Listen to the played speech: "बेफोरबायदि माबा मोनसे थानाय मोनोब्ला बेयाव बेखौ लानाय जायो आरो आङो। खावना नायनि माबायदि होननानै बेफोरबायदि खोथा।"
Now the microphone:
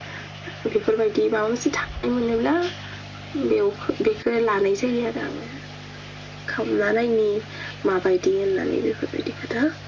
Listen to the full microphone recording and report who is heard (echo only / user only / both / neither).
echo only